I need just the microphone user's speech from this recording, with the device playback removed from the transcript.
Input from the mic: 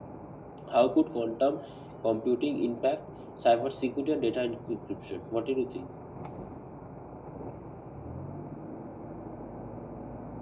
how could quantum computing impact cybersecurity and data encryption? What did you think?

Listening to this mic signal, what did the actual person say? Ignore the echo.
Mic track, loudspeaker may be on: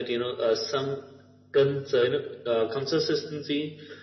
none

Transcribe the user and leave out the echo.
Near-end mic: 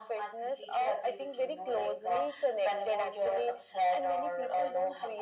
none

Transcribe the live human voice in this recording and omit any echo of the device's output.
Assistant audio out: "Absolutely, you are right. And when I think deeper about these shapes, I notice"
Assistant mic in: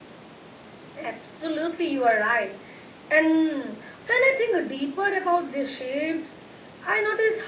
none

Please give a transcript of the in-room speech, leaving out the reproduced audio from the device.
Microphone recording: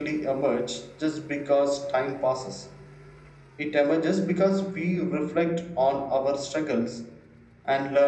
none

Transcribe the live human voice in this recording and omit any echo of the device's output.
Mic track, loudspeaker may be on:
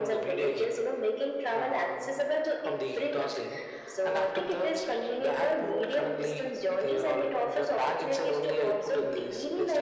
none

